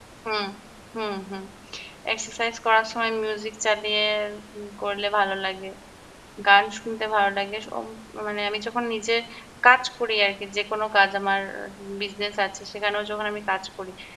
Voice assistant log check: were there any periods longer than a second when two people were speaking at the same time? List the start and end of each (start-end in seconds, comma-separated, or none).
none